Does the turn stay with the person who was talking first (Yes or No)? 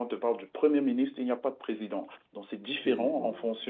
Yes